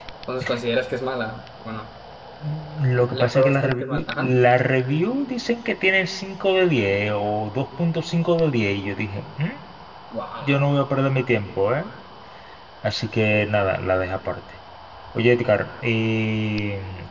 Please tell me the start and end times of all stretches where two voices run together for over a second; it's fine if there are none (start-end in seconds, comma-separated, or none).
3.0-4.3